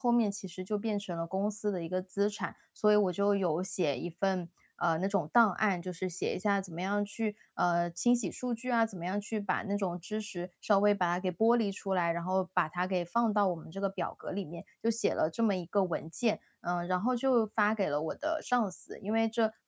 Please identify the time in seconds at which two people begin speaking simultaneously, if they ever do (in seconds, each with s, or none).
none